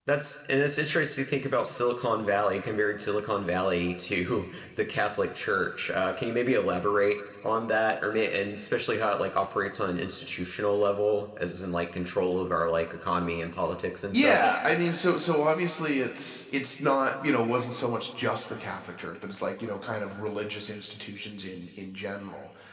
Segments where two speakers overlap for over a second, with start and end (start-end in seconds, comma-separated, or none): none